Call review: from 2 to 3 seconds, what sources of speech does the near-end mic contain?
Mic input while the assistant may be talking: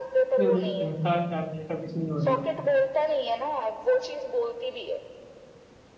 both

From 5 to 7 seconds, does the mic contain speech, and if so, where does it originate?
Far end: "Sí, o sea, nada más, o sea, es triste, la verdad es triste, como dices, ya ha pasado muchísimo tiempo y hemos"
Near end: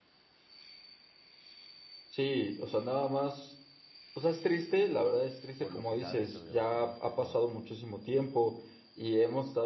both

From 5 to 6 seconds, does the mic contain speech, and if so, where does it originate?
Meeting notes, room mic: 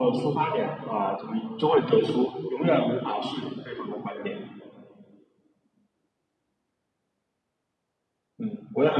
neither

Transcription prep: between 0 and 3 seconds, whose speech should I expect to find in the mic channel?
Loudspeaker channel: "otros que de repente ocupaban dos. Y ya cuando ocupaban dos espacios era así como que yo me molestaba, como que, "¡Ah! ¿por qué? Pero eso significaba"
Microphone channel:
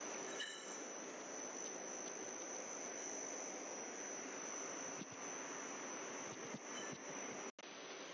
neither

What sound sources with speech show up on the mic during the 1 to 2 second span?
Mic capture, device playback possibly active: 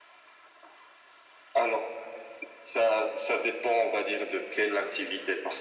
echo only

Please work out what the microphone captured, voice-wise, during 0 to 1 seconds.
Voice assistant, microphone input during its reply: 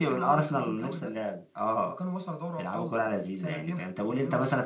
echo only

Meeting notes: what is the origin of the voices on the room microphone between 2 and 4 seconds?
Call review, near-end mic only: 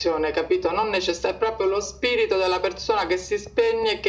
echo only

